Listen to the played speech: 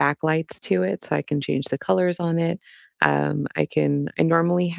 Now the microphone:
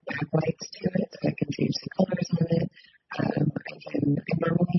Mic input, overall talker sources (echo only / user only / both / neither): echo only